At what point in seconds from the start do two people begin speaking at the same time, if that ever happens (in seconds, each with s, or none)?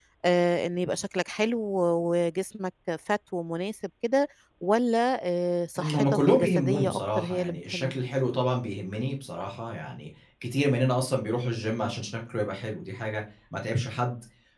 5.8 s